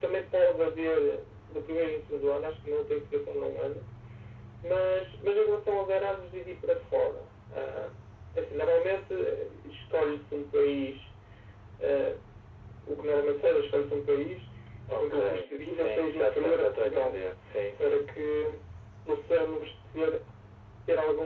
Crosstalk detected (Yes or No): Yes